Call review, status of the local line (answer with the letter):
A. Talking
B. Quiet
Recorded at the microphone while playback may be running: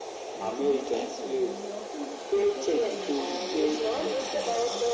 A